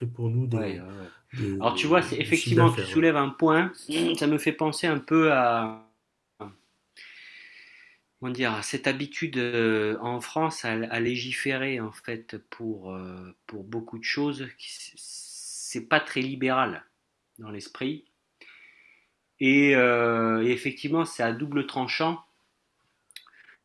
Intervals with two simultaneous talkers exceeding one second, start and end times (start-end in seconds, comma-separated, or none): 1.6-3.0